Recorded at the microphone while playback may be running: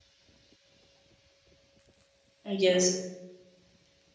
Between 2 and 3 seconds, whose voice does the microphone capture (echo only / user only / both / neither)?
user only